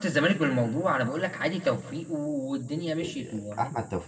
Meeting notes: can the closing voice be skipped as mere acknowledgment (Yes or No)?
No